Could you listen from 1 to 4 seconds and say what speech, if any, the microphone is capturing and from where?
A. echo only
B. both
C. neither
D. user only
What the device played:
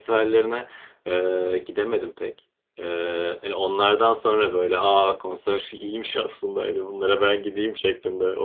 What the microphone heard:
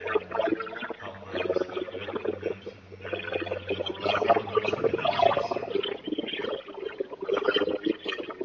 B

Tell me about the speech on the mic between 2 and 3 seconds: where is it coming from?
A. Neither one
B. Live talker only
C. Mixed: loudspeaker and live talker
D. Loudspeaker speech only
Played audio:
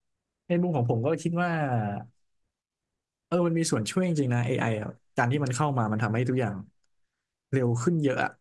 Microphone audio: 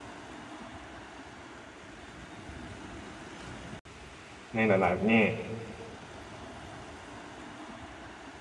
A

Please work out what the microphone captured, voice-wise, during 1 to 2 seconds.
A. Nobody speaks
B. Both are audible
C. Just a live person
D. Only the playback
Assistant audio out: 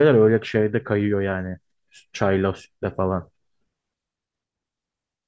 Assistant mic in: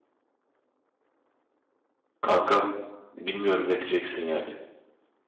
A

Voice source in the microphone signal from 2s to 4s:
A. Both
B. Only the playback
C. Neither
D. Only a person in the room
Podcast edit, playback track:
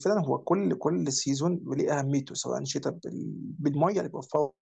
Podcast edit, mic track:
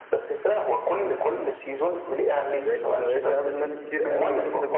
A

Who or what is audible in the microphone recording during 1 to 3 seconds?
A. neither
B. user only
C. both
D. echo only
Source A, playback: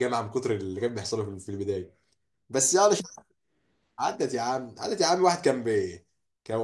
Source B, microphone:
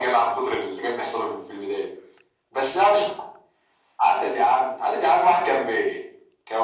D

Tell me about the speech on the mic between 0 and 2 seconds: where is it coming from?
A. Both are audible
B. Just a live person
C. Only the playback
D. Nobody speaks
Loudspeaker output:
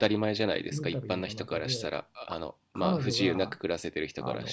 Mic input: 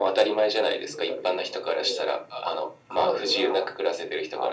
C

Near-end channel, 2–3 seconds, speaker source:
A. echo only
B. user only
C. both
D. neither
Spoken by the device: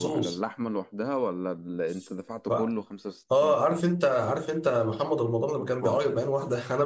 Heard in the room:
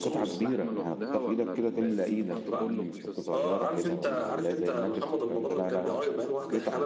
C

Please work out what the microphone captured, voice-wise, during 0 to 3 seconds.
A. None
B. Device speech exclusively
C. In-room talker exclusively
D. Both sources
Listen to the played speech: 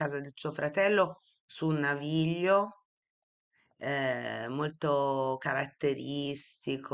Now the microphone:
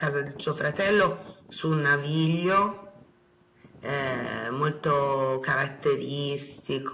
B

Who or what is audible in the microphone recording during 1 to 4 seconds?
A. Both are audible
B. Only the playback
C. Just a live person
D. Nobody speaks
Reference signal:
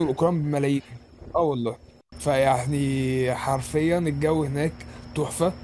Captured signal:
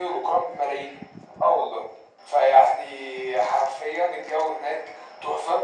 B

